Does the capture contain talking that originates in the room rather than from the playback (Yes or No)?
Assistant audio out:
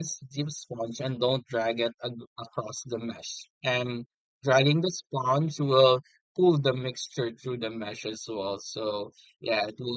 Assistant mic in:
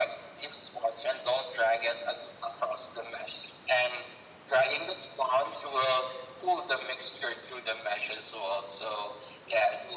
No